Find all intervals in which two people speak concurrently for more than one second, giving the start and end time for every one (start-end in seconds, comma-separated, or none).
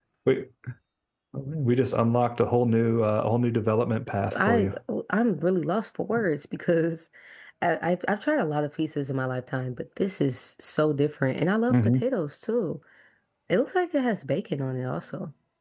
none